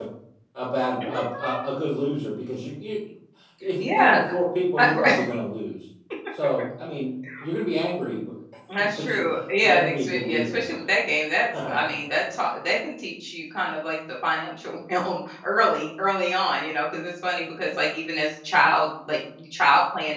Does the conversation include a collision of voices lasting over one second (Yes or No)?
Yes